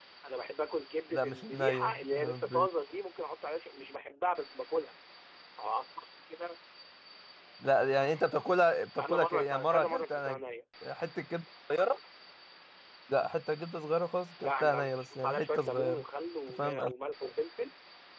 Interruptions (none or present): present